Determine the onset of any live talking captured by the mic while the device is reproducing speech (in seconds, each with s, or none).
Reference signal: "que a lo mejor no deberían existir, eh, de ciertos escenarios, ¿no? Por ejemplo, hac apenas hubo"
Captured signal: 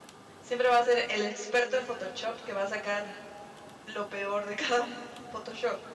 0.4 s